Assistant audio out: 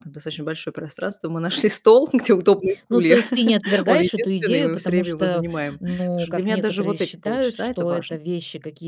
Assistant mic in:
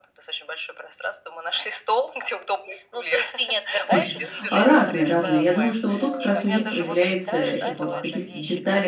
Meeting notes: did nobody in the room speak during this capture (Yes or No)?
No